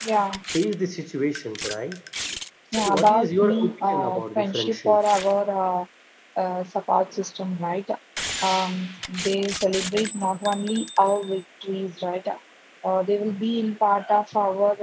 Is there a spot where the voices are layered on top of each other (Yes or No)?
Yes